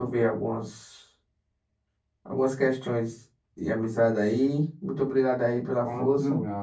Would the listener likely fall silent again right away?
No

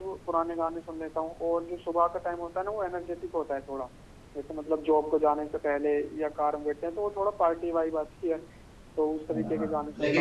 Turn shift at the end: Yes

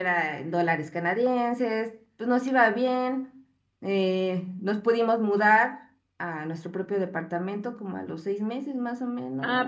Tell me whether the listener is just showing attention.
No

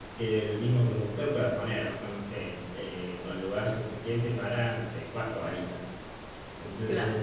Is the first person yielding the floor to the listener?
No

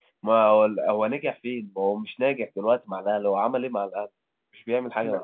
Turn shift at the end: Yes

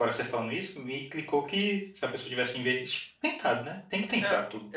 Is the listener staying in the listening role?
No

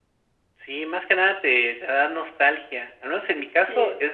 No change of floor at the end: Yes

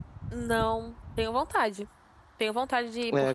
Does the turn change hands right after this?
Yes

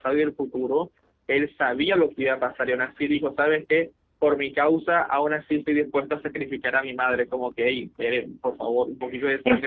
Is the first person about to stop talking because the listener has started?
Yes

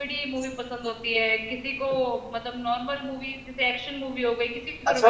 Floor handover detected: Yes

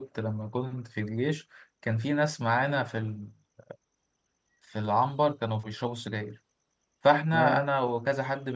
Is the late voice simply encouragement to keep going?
Yes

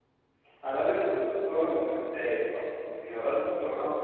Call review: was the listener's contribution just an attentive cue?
Yes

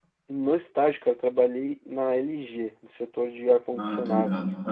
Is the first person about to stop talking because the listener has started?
Yes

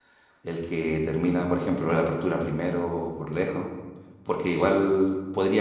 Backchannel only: Yes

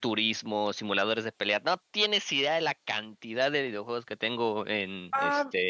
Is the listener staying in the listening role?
No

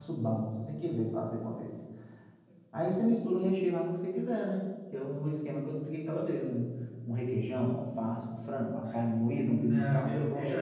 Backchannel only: No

